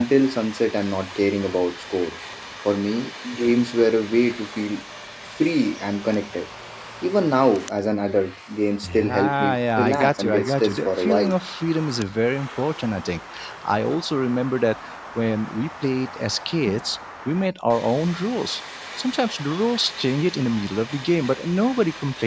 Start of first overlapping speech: 9 s

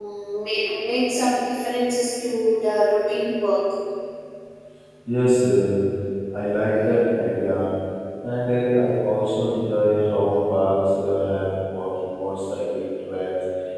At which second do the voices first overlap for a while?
none

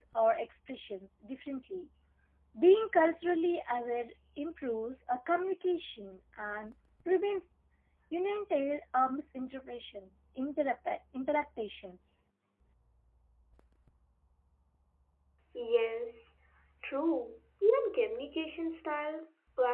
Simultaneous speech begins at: none

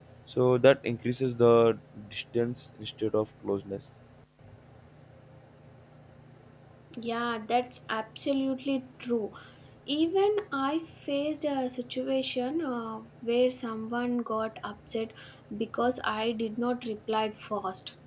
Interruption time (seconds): none

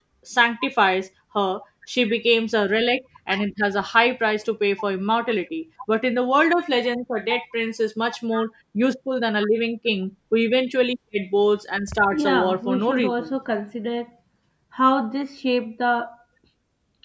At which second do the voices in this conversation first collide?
12 s

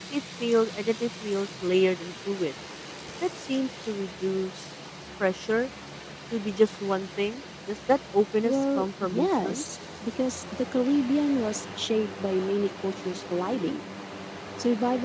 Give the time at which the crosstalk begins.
8 s

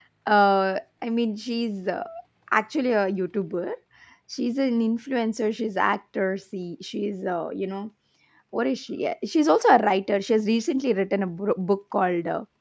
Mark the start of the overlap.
none

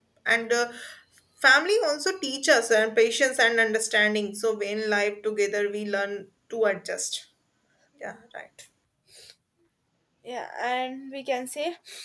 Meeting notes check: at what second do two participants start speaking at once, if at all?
none

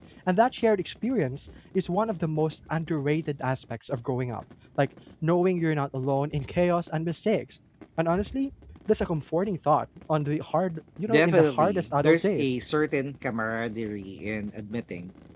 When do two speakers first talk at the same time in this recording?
11 s

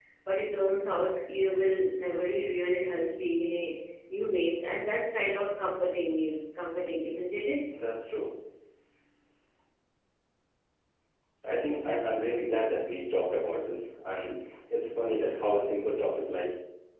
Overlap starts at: none

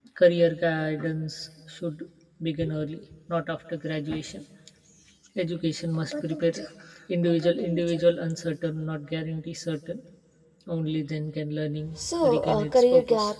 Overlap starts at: 12 s

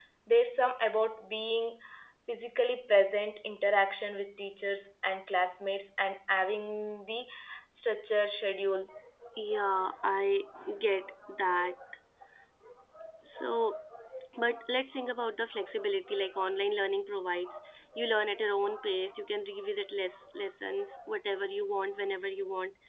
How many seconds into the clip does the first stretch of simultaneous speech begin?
none

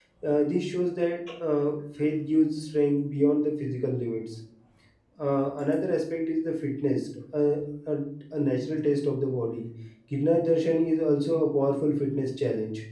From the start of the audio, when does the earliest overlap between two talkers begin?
none

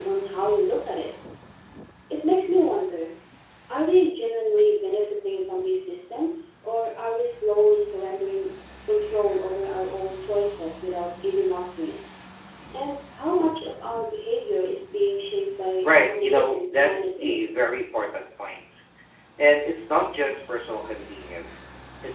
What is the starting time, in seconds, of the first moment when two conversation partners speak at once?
16 s

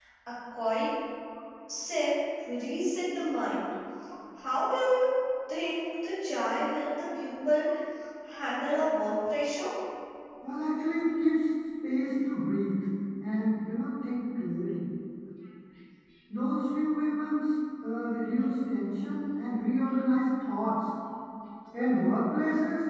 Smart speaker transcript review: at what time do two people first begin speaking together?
none

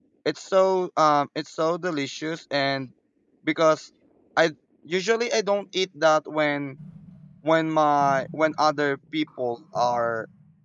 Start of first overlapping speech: none

